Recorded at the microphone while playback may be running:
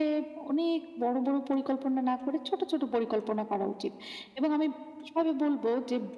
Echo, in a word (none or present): present